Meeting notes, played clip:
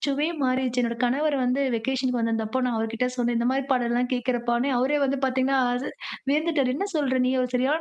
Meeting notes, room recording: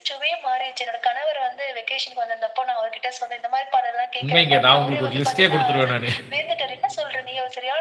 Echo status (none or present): present